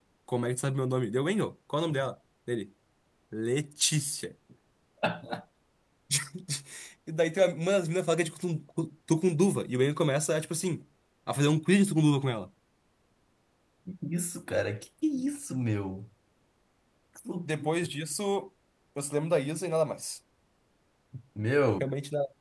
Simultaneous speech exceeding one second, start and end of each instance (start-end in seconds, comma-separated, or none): none